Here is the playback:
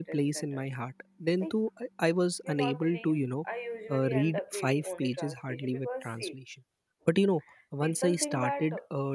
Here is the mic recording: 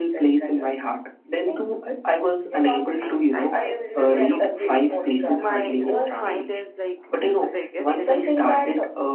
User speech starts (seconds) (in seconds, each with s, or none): 3.0 s